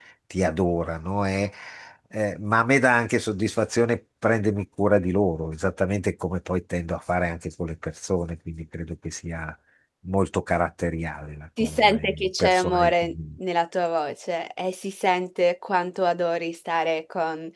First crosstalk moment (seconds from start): 11.6 s

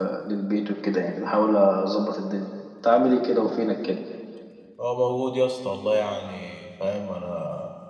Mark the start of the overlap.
none

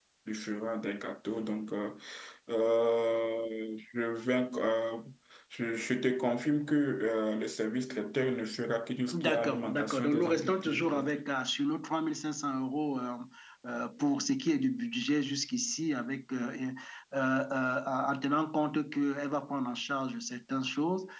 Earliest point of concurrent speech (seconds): 9.1 s

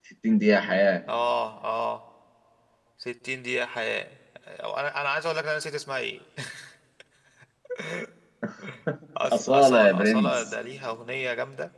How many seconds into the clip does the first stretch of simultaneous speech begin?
9.3 s

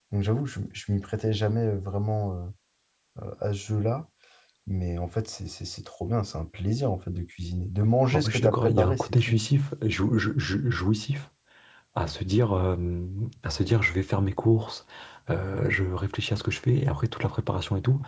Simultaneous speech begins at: 8.1 s

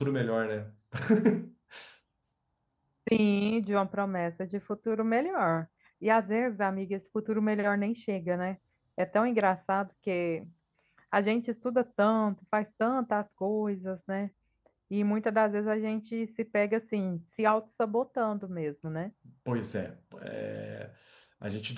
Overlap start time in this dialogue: none

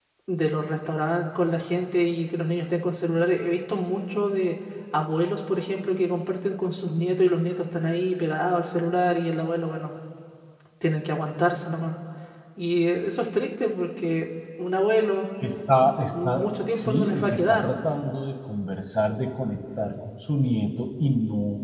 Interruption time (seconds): 16.1 s

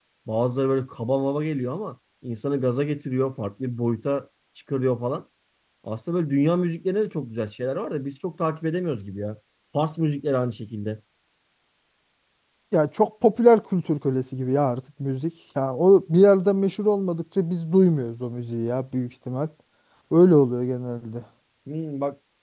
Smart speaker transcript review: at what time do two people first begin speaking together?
none

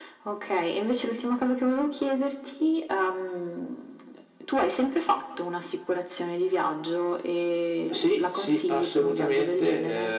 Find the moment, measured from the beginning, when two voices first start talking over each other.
7.9 s

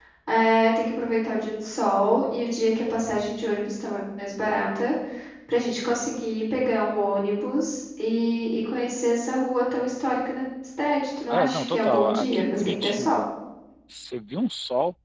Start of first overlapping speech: 11.3 s

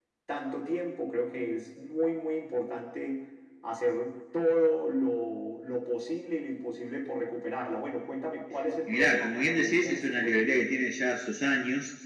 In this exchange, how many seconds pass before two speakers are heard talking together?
8.9 s

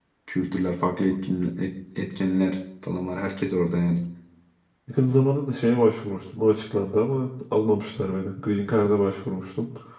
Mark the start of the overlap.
none

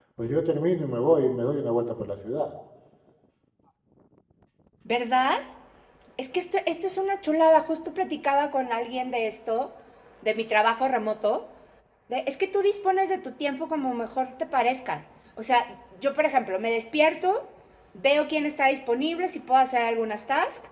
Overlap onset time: none

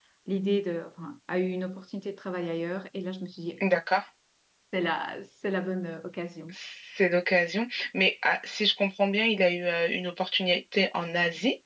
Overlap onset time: none

